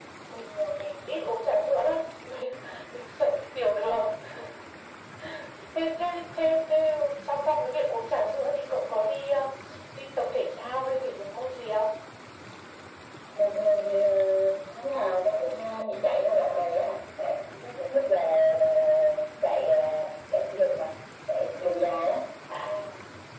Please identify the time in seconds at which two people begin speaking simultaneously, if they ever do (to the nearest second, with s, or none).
none